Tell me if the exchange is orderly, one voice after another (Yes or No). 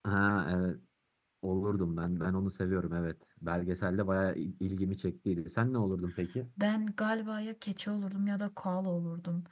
Yes